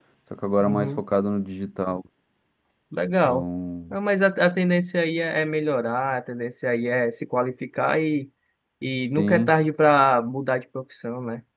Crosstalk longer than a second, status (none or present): none